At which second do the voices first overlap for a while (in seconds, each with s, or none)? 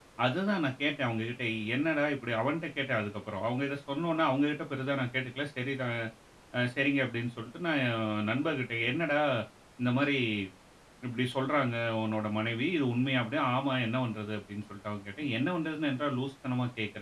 none